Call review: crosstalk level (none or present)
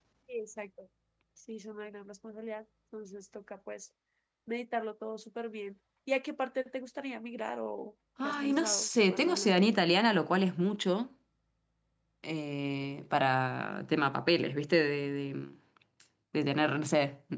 present